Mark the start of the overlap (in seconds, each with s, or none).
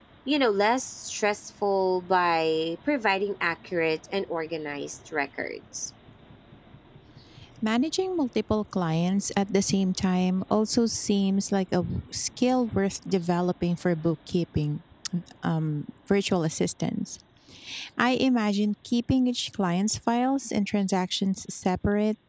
none